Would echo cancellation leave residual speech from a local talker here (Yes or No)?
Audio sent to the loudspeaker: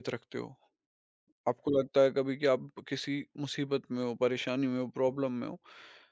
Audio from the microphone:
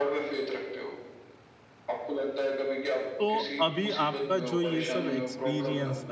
Yes